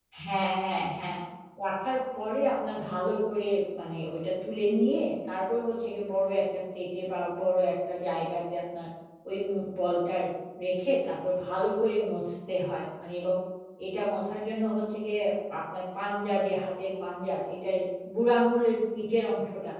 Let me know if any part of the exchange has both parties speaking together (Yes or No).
No